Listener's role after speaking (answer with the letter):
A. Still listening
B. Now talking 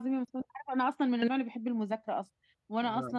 A